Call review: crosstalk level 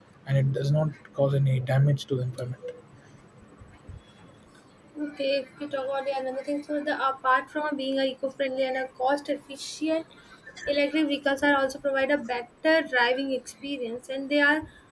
none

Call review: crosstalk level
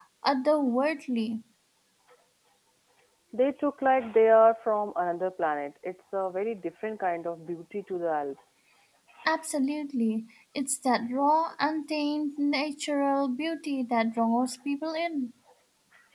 none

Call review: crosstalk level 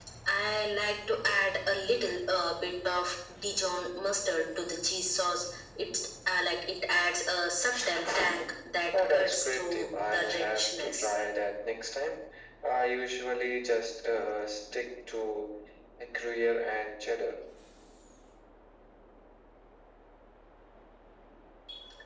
present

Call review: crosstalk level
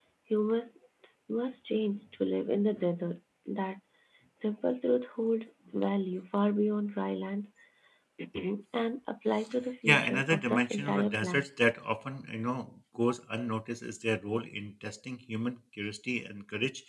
present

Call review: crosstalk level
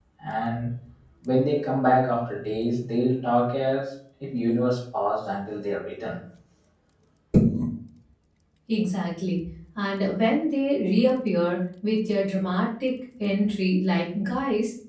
none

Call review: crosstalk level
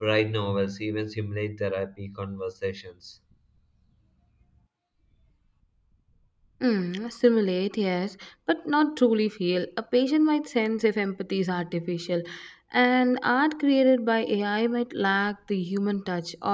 none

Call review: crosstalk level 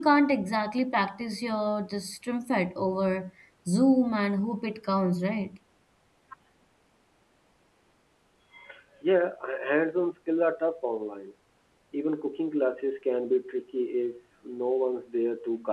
none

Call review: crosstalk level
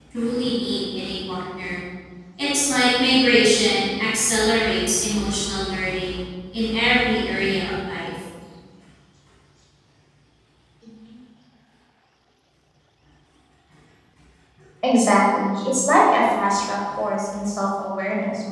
none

